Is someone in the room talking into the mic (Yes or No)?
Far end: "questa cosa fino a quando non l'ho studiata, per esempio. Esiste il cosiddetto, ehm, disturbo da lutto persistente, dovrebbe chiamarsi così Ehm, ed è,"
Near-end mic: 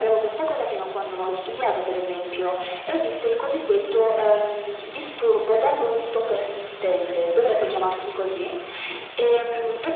Yes